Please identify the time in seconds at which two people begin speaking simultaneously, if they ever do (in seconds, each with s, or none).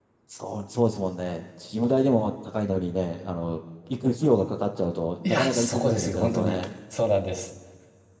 5.2 s